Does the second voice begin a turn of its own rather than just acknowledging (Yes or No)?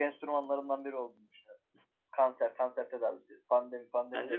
Yes